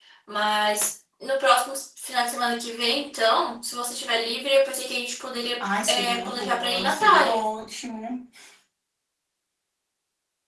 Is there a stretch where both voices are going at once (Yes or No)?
Yes